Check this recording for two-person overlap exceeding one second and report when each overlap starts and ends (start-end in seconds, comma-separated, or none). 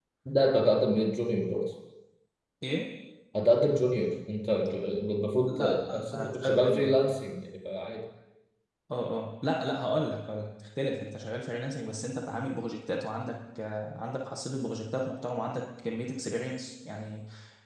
5.5-6.9